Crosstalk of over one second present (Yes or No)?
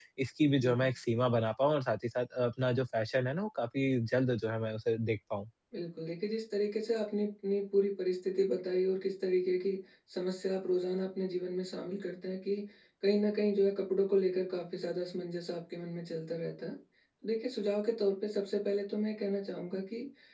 No